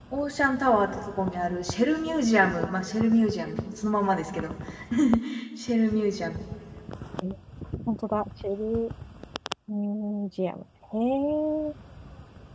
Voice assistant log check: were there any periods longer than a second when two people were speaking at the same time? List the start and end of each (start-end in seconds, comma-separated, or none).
none